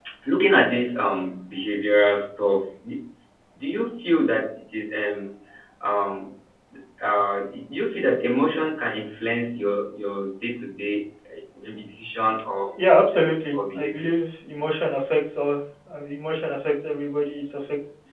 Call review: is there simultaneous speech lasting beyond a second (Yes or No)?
Yes